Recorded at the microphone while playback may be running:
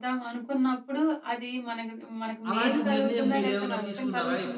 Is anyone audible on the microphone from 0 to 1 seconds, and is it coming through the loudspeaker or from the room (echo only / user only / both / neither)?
echo only